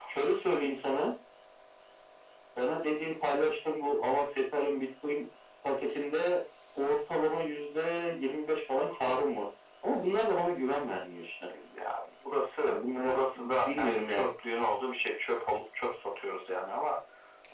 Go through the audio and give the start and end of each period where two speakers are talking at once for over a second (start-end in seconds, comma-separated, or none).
12.6-14.3